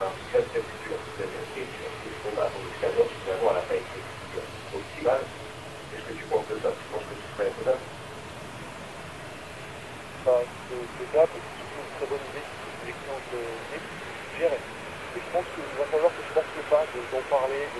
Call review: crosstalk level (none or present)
none